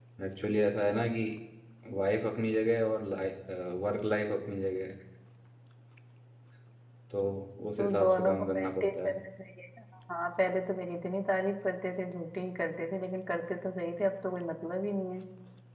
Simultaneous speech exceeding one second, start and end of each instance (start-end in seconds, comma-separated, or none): 7.8-9.1